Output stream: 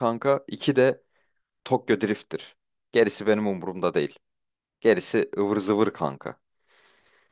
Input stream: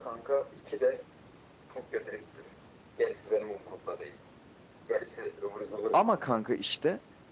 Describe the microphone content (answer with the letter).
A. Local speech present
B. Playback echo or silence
A